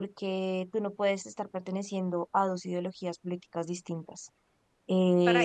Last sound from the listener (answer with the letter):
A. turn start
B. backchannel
A